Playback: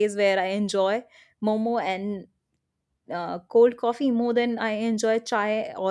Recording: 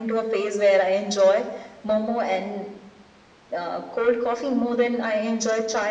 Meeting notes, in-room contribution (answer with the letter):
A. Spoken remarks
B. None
B